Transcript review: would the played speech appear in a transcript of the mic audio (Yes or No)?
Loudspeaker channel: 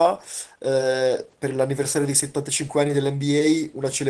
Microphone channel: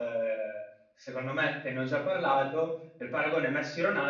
No